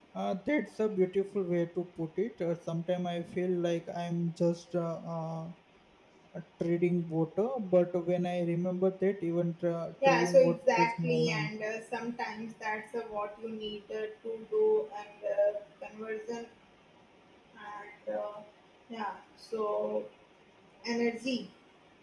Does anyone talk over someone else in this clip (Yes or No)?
Yes